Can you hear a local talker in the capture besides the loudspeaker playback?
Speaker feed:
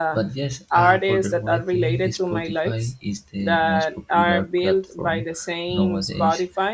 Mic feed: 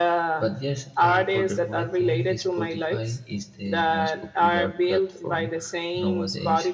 No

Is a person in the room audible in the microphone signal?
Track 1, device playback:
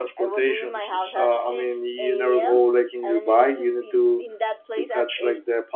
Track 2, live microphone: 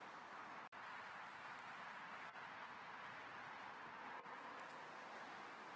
No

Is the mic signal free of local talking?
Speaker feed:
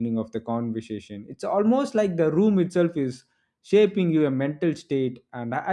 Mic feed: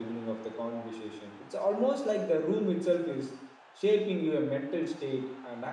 Yes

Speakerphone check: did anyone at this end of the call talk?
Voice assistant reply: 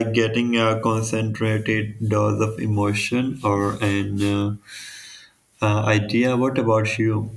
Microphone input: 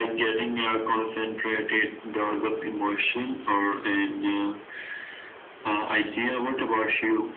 No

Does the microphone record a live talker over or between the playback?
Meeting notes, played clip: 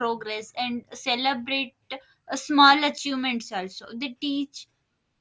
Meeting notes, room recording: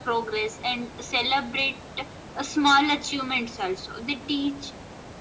No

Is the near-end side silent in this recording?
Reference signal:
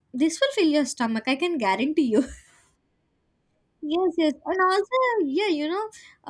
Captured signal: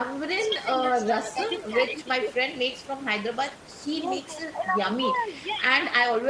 No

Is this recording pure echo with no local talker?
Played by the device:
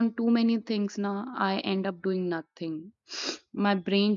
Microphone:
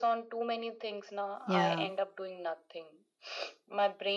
No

